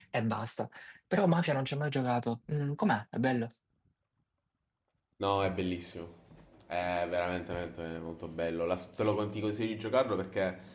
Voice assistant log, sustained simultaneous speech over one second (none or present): none